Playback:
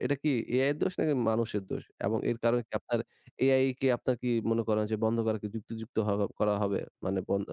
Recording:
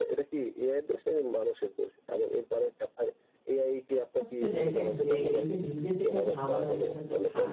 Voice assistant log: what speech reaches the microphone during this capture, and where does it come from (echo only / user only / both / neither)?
both